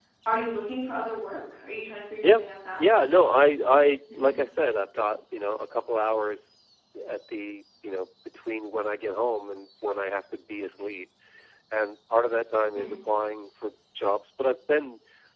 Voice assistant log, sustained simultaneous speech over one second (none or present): none